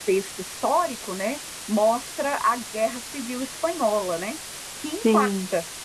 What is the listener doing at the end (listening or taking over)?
listening